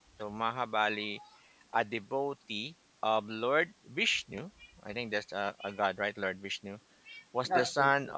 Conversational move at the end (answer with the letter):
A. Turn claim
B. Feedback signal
B